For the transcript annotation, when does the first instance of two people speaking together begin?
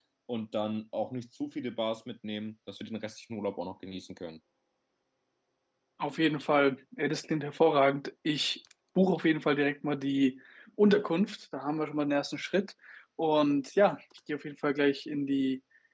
none

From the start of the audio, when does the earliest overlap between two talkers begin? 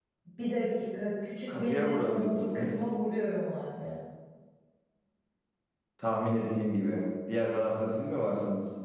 1 s

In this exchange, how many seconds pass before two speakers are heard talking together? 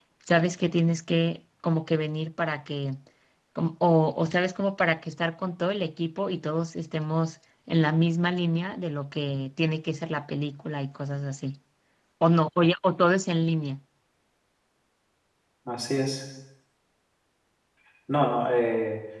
none

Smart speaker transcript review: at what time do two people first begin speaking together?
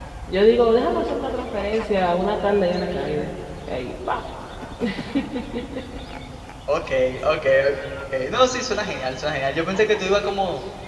none

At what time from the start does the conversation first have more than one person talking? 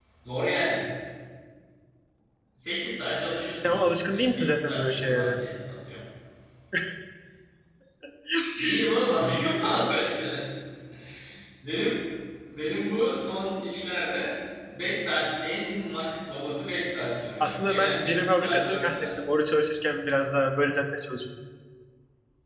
4 s

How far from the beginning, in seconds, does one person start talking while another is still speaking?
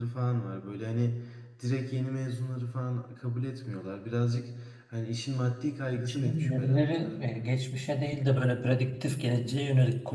6 s

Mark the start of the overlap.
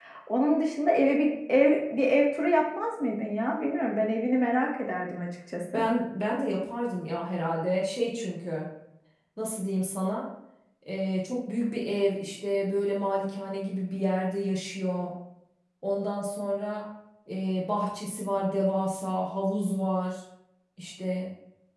none

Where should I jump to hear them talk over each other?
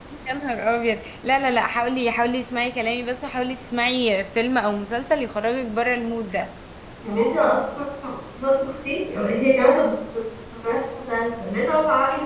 none

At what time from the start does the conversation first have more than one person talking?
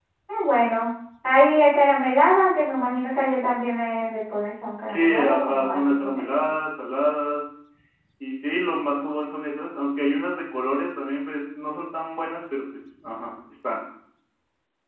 5 s

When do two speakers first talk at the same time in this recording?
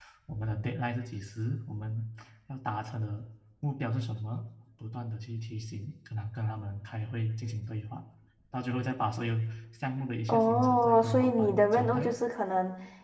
10 s

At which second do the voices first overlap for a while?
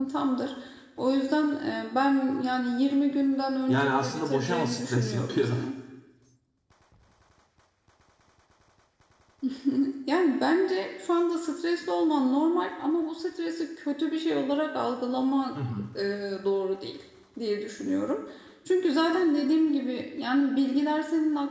4 s

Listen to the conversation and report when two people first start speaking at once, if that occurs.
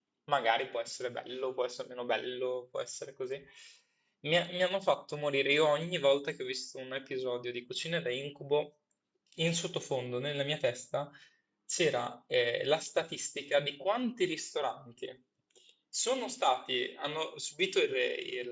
none

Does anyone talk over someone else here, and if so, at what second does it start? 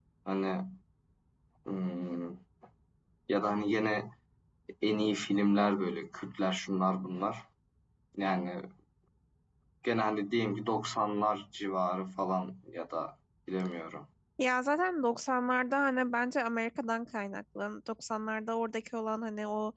none

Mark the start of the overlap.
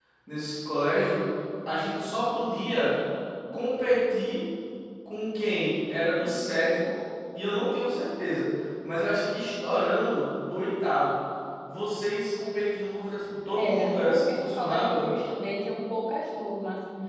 14 s

